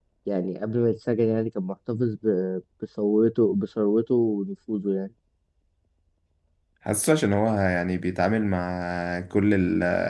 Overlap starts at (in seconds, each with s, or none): none